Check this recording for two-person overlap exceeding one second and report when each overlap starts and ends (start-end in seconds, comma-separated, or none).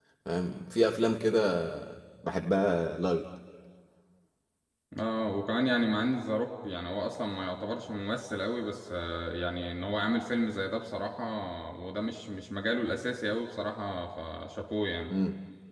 none